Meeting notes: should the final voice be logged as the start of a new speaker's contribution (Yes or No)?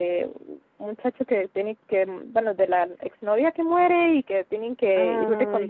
No